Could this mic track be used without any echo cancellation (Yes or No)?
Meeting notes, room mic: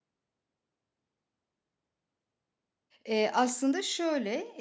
Yes